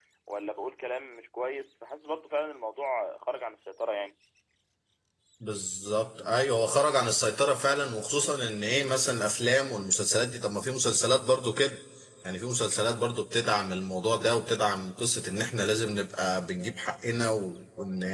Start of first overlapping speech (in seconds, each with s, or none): none